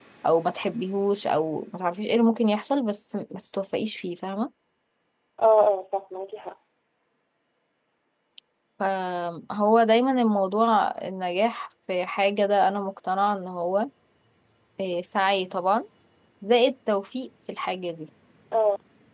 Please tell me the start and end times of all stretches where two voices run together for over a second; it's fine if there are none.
none

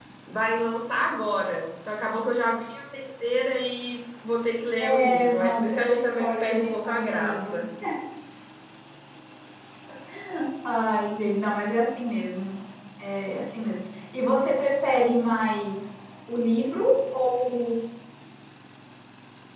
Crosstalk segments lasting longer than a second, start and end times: 4.8-7.6

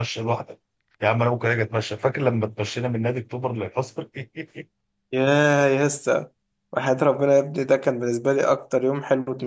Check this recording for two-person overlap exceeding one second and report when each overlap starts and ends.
none

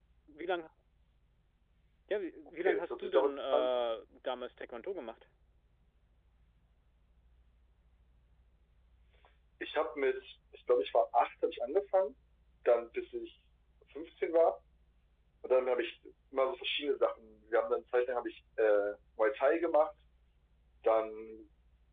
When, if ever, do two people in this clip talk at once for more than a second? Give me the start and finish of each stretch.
2.6-3.8

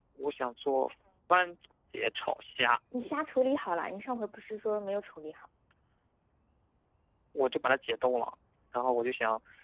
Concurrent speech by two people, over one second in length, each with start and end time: none

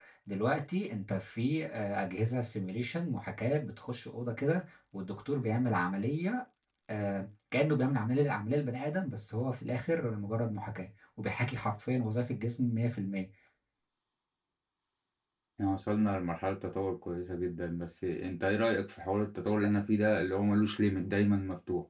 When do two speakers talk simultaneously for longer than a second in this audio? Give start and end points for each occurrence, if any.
none

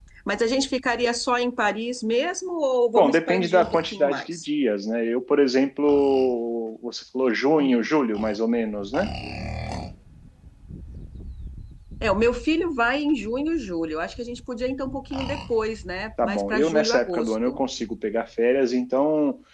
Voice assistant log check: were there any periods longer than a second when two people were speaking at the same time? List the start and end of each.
3.0-4.5, 16.2-17.6

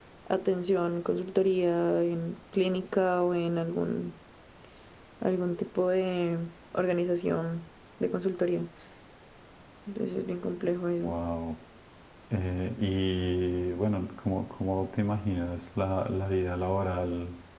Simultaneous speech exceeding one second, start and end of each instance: none

